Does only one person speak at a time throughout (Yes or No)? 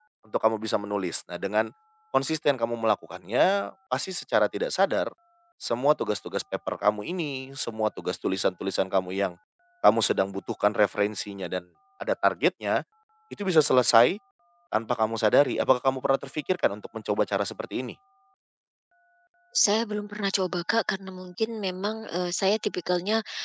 Yes